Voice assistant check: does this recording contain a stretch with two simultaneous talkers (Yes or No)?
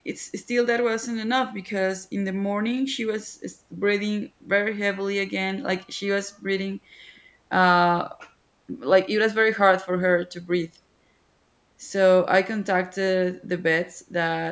No